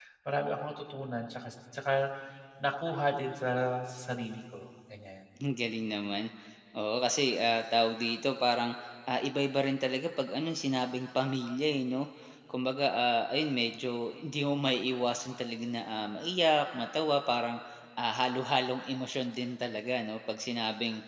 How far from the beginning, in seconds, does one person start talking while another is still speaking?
none

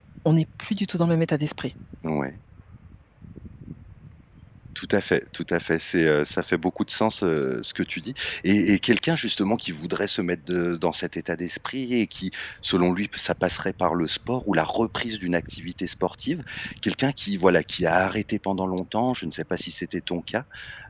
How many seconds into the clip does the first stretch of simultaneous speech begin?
none

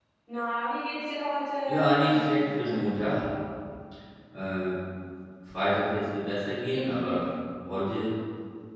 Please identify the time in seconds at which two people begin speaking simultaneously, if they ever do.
1.7 s

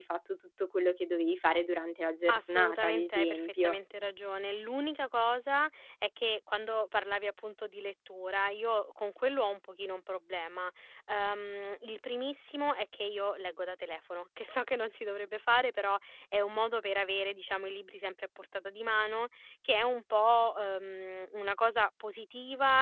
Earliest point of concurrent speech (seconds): 2.3 s

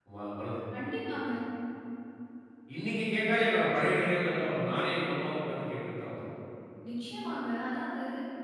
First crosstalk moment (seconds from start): none

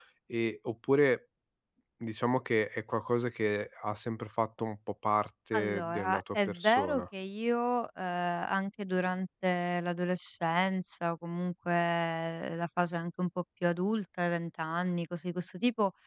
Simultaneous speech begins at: 5.5 s

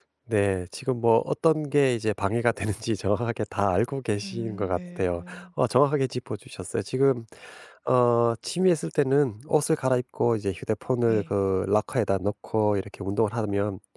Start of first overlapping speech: 4.2 s

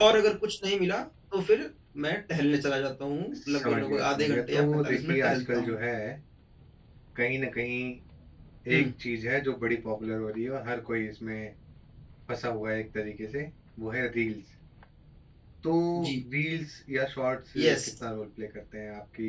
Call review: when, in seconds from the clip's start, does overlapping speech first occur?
3.4 s

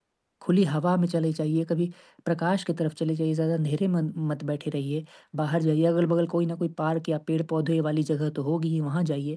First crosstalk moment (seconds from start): none

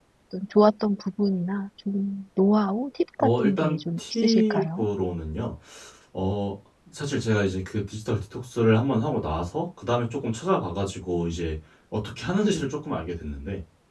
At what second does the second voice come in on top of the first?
3.2 s

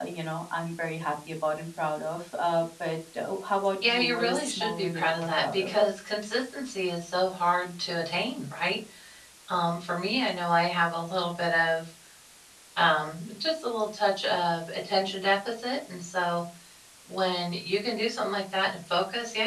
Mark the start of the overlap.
3.8 s

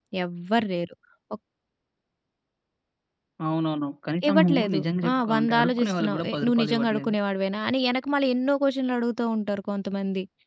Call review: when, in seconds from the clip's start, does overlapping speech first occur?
4.3 s

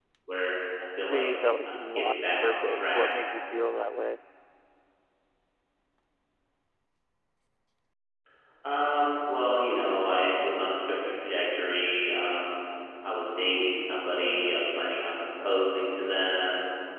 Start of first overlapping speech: 1.0 s

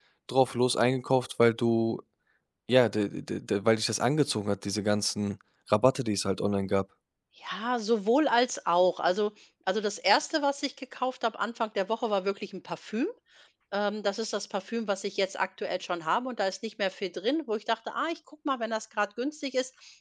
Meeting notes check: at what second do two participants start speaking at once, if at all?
none

